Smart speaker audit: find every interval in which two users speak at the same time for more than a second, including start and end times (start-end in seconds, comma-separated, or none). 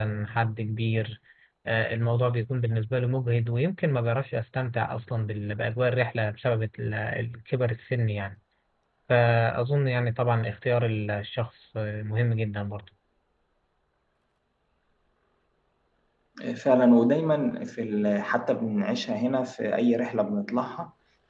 none